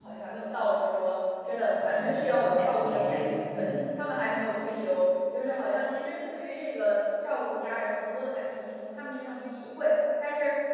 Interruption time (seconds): 1.8 s

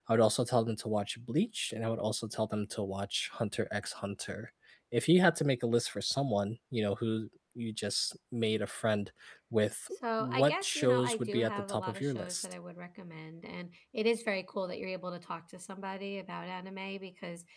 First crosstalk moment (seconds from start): 9.9 s

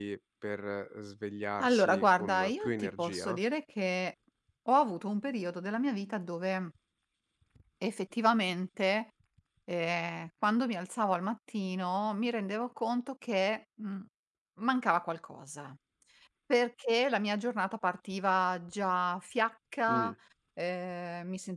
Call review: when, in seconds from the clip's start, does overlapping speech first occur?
1.6 s

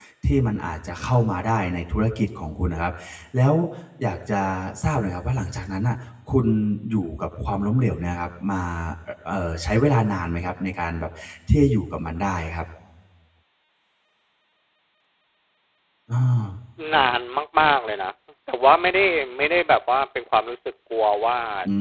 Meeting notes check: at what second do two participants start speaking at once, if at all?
none

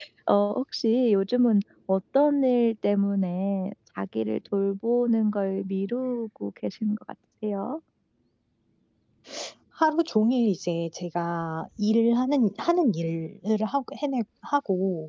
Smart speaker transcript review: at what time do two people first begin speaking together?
none

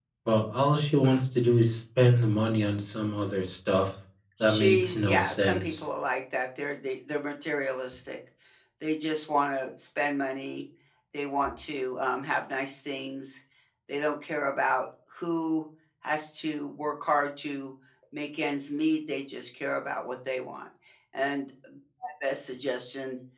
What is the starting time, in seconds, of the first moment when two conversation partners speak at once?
4.4 s

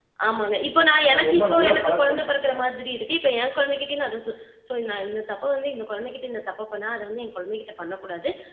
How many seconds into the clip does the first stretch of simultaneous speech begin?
1.1 s

